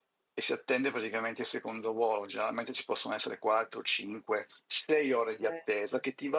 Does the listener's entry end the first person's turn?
No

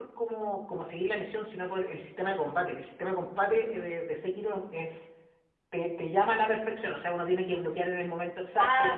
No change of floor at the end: Yes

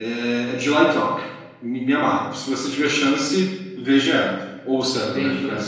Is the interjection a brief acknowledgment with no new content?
No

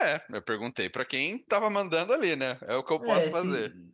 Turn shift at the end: Yes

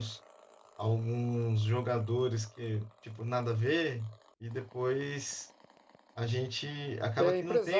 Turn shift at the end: Yes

